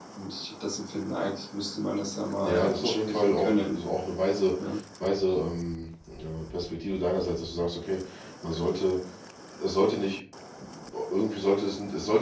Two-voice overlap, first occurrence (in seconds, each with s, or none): 2.4 s